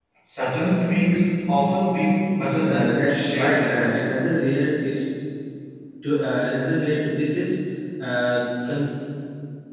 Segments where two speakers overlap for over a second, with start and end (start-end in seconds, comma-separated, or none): 2.6-4.0